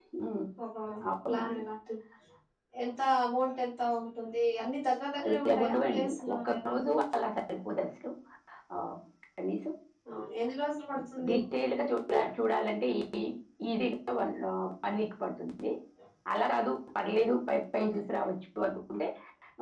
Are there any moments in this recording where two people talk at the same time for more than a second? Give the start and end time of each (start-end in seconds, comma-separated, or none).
5.2-6.7